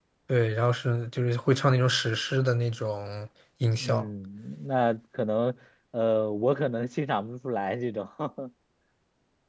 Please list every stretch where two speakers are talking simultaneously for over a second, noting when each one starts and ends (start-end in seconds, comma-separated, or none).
none